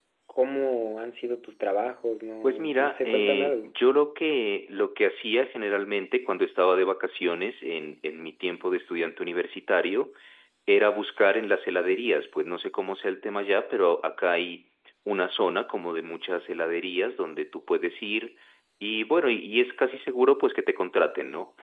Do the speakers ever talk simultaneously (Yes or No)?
Yes